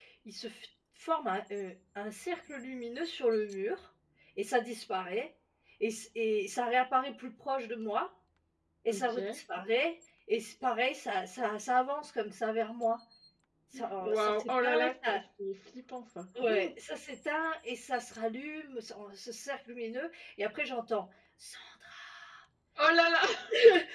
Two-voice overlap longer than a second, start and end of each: 13.7-15.2

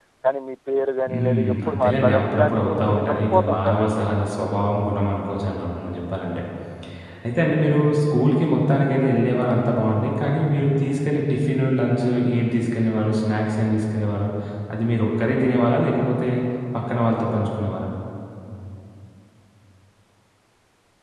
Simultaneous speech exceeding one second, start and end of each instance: 1.1-4.0

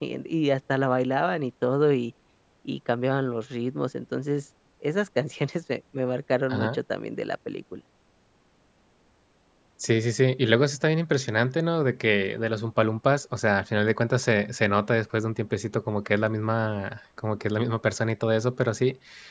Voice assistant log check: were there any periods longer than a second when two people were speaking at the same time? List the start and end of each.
none

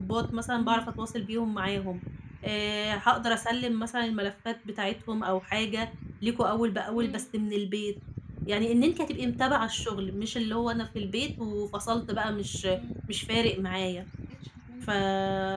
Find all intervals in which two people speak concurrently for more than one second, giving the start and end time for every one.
none

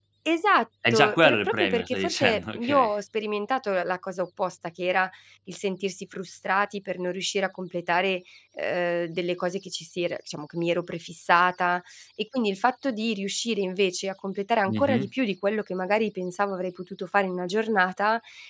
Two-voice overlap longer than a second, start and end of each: 0.9-3.0

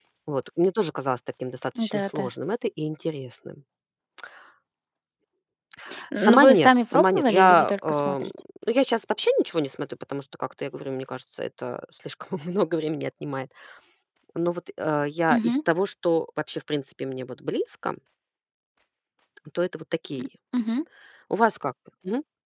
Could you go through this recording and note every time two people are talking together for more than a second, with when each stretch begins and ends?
6.2-8.3

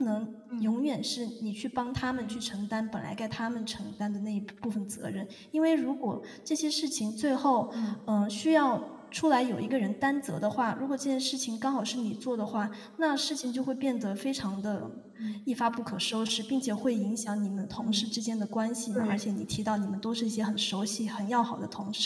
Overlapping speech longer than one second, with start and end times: none

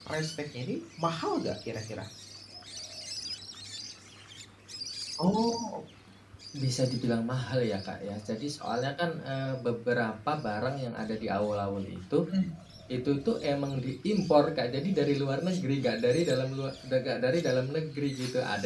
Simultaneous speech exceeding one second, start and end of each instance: none

